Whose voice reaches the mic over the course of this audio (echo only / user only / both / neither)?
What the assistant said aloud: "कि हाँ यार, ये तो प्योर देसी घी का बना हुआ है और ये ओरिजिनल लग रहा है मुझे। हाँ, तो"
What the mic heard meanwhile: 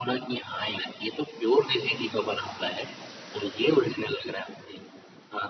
echo only